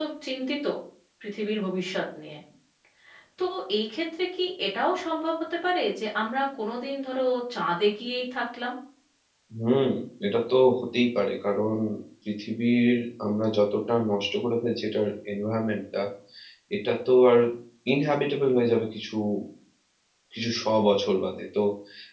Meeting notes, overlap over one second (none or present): none